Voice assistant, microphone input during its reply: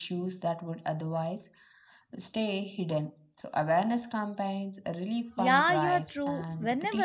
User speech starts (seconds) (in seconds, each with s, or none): 5.4 s